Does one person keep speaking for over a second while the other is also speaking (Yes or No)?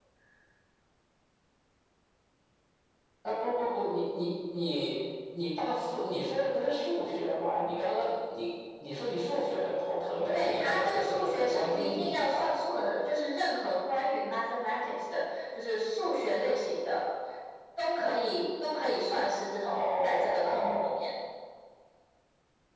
Yes